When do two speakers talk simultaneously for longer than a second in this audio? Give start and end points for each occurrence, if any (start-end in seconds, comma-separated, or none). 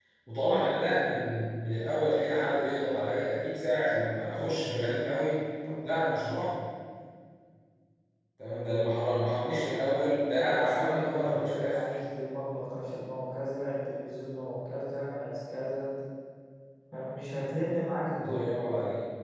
10.4-11.8